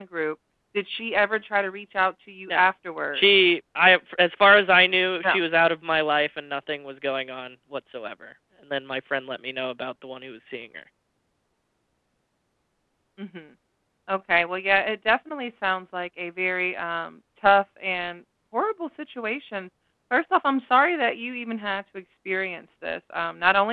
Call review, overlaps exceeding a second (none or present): none